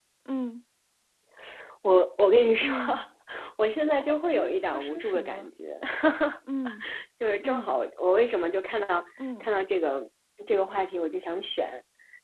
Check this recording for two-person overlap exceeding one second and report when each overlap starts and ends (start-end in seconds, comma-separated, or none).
4.0-5.5